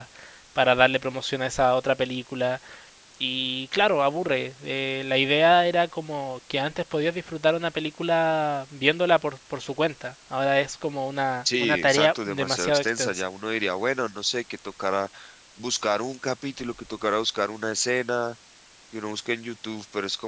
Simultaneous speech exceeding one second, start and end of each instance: 11.6-13.2

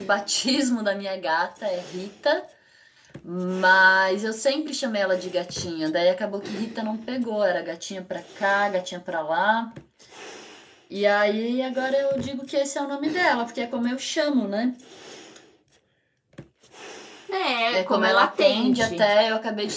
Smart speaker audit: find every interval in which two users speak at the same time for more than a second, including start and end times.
17.7-19.1

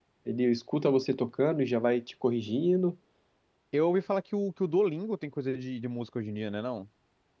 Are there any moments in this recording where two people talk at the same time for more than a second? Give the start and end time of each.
none

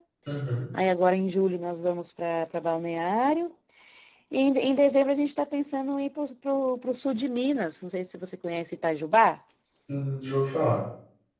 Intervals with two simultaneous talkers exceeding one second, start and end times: none

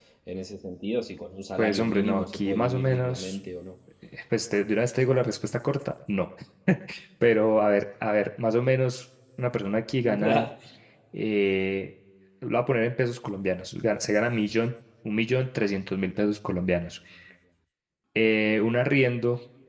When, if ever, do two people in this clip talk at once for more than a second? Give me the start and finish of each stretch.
1.6-3.4

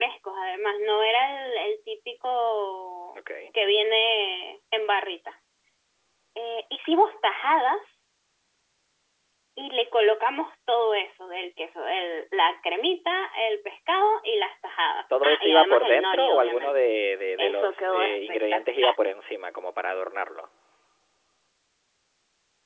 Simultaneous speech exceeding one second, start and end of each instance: 15.2-16.7, 17.4-18.9

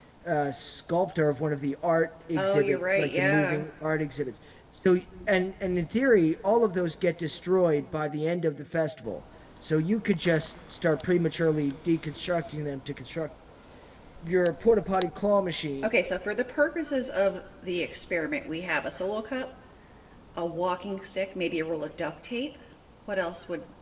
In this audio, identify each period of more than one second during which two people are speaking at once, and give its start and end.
2.4-3.6

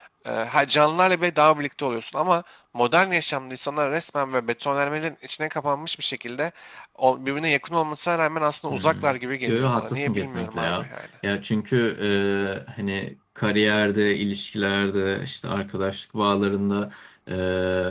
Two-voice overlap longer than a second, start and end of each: 9.5-10.9

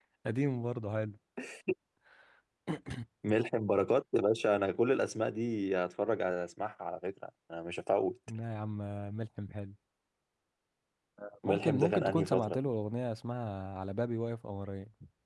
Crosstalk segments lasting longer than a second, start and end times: 11.5-12.7

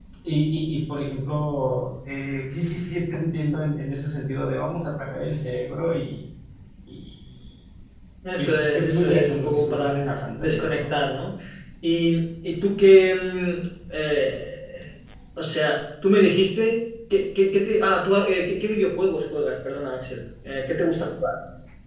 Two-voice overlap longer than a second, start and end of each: 8.4-9.9

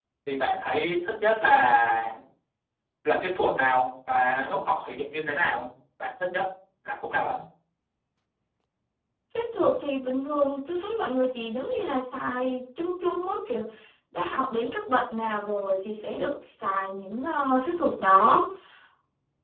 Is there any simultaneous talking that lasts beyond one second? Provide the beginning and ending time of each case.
none

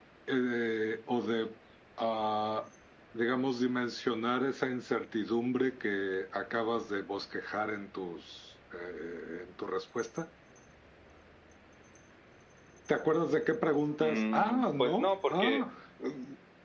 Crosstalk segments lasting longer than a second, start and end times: 14.0-15.6

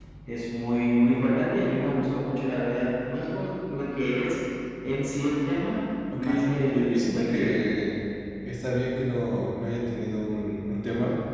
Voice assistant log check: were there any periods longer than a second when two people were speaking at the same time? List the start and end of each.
6.2-7.6

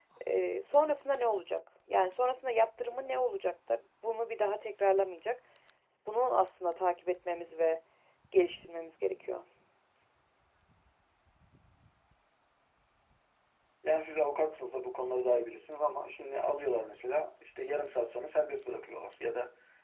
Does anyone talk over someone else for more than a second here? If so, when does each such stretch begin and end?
none

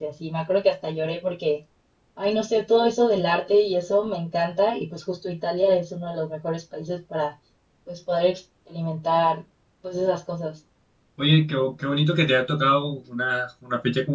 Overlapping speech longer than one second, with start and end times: none

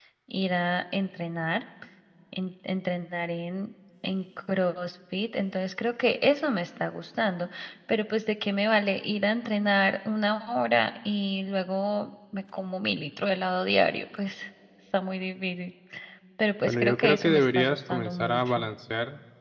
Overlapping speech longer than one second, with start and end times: 16.7-18.7

